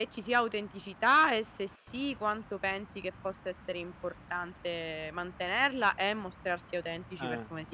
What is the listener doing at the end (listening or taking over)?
taking over